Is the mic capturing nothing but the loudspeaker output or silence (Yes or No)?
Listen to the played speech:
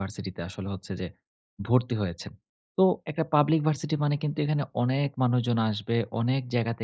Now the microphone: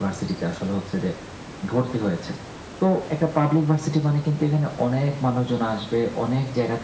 Yes